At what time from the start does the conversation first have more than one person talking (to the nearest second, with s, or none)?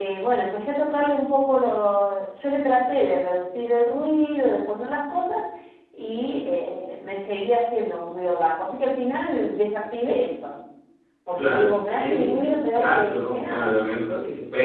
11 s